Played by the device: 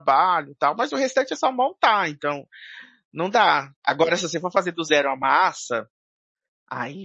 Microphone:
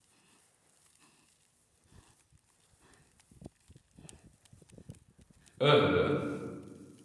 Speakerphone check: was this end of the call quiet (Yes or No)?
No